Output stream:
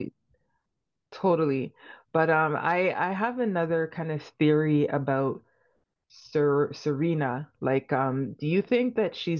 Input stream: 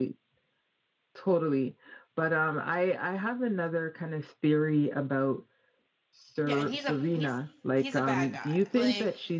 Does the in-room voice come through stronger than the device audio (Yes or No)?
No